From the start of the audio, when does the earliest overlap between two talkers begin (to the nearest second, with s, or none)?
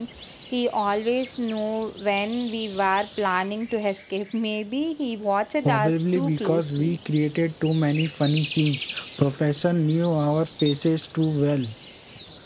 6 s